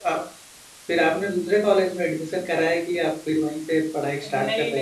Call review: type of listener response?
taking over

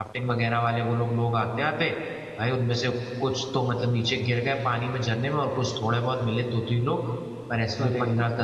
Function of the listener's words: listening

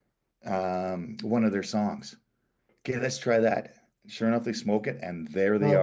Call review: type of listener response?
taking over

